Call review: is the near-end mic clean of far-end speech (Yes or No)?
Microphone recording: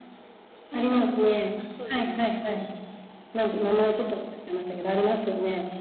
No